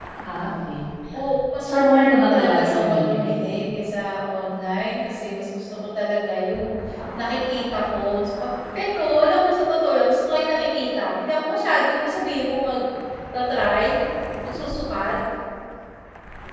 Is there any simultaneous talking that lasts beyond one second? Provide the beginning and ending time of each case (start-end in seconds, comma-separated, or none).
1.6-3.4